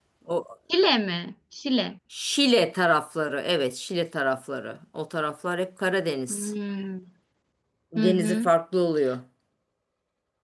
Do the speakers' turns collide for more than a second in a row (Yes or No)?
No